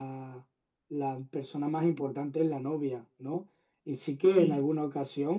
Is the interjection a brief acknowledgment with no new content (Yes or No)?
Yes